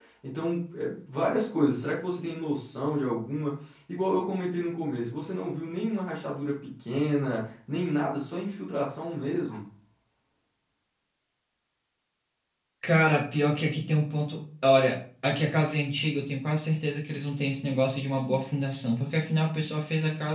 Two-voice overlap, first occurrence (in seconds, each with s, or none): none